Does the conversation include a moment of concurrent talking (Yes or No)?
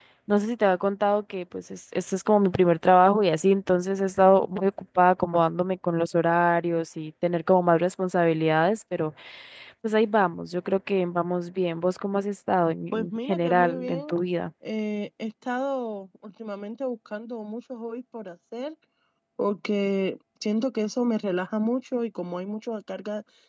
Yes